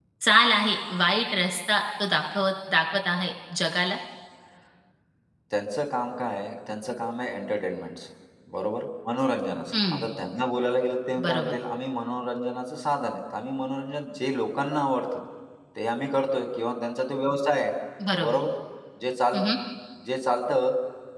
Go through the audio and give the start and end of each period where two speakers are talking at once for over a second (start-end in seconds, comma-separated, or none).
none